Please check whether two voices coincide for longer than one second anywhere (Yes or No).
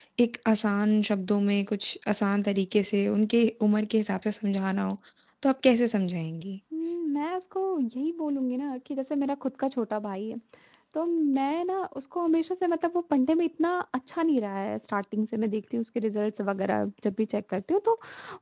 No